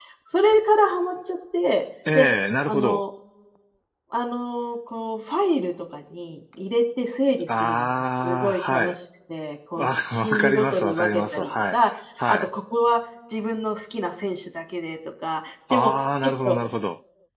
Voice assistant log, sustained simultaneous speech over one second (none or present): present